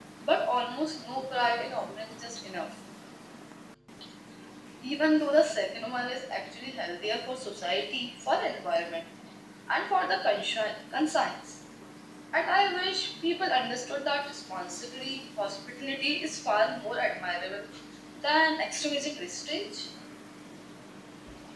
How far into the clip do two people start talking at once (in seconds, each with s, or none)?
none